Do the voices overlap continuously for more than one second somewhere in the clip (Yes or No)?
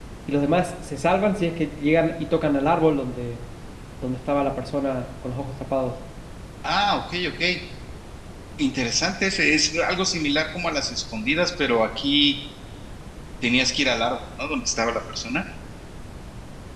No